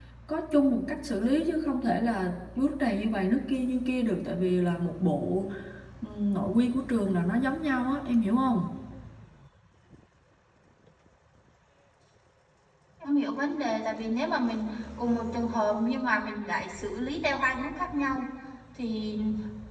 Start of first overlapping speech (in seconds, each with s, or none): none